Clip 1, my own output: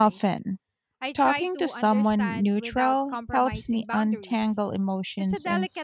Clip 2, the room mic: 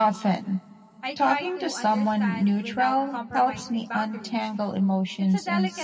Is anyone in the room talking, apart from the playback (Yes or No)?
No